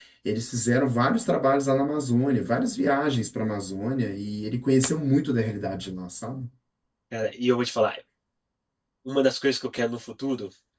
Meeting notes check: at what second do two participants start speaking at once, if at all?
none

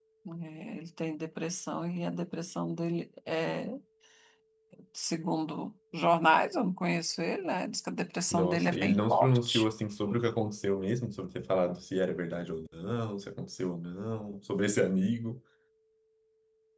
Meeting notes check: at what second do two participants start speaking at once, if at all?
8.3 s

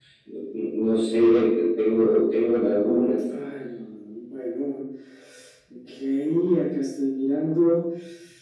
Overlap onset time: none

